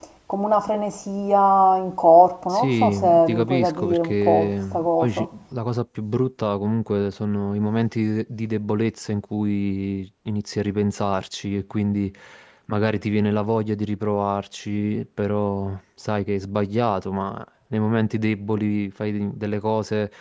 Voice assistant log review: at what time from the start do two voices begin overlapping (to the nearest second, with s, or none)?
3 s